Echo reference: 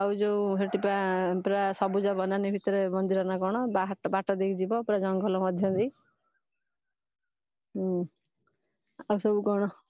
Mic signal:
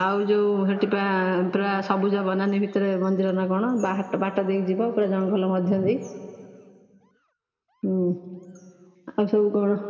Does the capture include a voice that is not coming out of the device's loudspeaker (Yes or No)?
No